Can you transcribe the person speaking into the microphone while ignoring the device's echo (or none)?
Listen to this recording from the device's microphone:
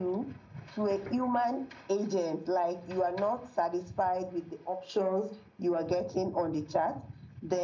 none